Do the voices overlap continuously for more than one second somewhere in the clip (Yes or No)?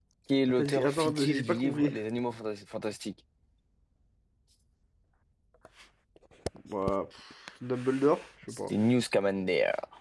Yes